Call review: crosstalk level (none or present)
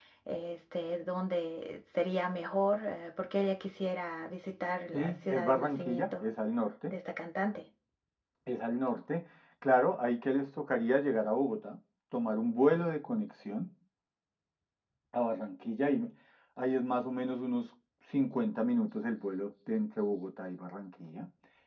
present